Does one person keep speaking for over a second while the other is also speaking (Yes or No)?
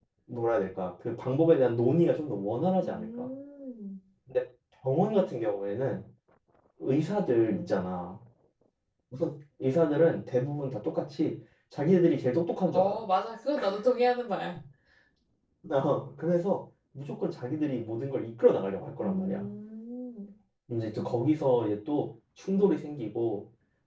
No